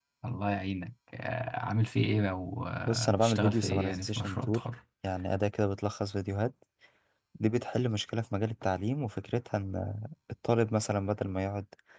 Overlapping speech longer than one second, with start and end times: 2.8-4.6

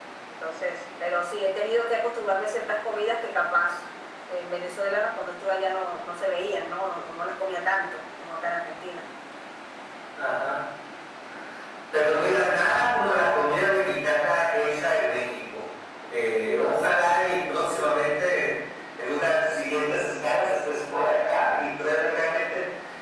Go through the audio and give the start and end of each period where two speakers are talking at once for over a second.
none

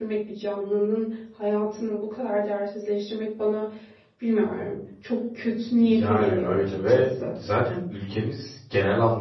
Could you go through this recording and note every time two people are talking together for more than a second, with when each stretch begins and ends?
5.8-7.4

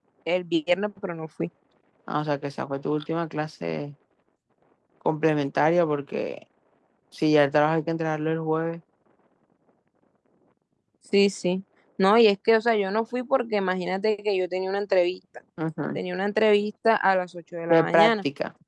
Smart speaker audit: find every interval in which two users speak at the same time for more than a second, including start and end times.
none

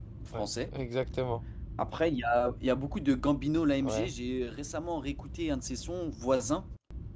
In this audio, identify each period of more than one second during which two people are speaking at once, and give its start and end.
none

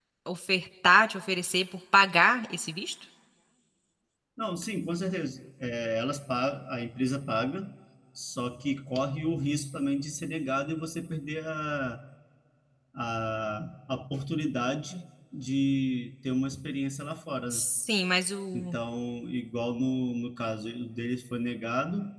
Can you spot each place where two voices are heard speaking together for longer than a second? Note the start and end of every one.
none

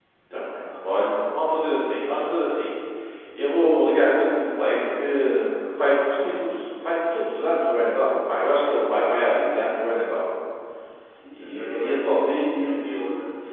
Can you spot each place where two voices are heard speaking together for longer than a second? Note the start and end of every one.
11.4-12.8

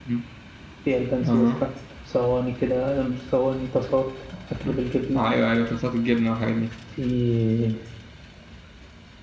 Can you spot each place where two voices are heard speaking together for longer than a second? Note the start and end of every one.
none

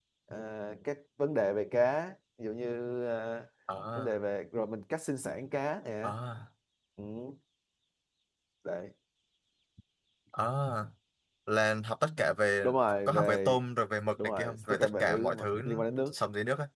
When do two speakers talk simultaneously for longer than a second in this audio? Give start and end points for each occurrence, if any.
14.2-15.6

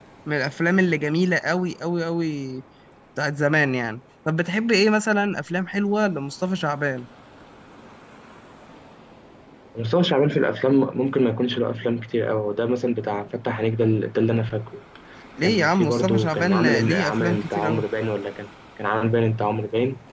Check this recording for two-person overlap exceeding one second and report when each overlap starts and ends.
15.4-17.9

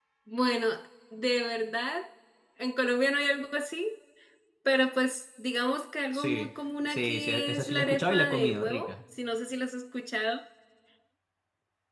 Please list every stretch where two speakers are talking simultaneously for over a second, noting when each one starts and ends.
6.9-8.9

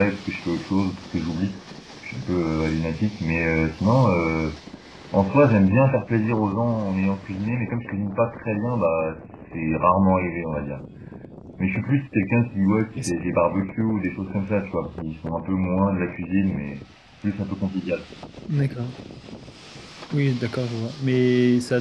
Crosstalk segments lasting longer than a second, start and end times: none

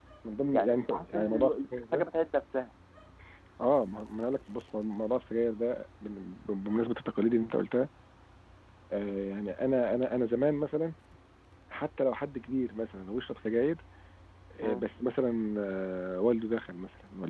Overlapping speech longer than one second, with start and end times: 0.5-2.0

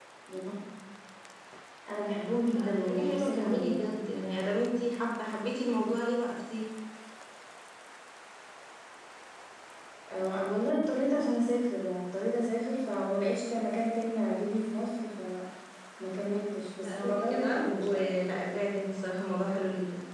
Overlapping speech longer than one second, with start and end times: 2.5-4.0, 16.8-18.2

